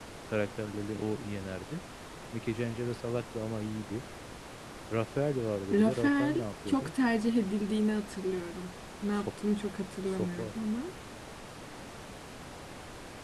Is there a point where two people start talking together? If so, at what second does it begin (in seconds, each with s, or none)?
5.7 s